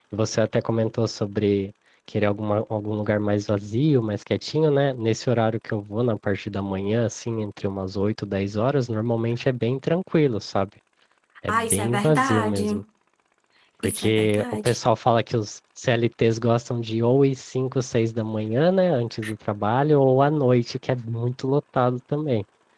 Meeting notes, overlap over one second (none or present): present